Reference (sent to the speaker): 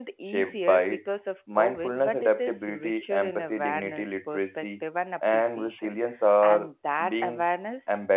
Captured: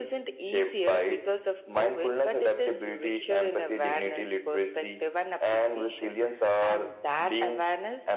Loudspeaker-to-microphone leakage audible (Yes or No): Yes